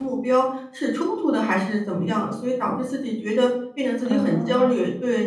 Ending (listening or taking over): listening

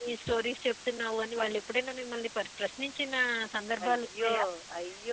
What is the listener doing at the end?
taking over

